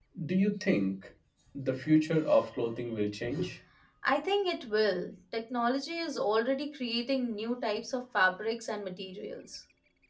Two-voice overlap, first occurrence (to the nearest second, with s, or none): none